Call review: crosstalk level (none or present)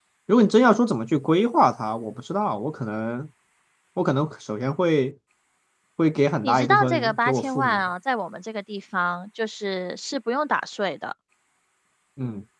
present